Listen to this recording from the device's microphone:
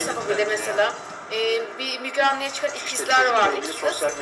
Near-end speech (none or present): none